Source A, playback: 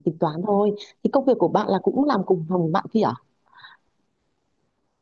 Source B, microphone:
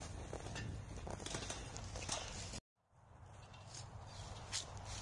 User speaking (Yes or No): No